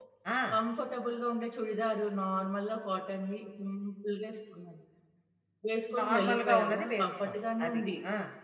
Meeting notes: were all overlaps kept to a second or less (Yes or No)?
No